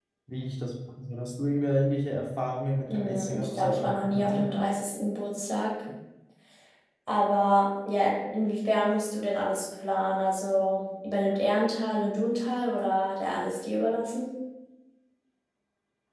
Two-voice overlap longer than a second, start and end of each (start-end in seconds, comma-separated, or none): 2.9-4.5